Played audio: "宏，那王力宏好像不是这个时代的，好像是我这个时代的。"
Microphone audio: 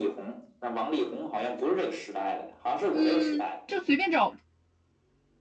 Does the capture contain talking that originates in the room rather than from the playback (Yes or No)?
Yes